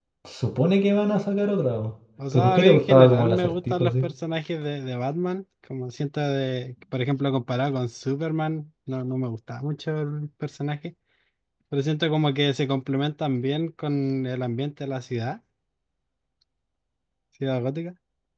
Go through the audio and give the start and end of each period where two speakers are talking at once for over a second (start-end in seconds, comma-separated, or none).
2.3-4.0